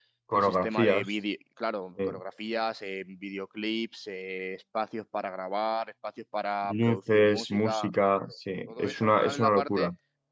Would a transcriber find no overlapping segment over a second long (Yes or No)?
No